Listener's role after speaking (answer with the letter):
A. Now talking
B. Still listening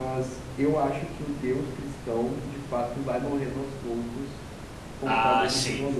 A